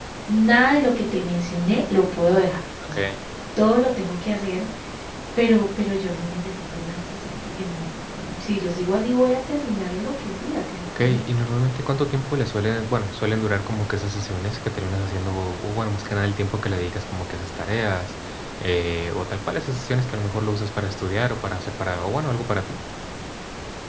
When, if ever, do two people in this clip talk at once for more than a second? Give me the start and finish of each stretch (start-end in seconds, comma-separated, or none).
none